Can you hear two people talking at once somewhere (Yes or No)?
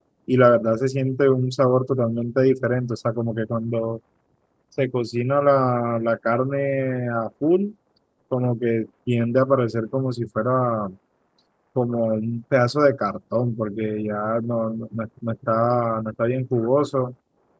No